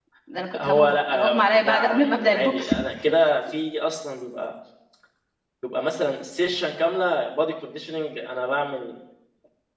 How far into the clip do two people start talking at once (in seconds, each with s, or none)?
0.6 s